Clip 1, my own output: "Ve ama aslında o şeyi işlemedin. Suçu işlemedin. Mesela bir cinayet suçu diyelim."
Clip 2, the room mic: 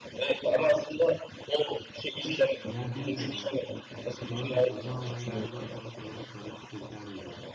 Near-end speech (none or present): present